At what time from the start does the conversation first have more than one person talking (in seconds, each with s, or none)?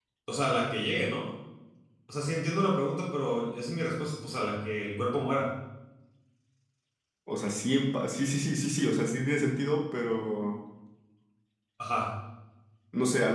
none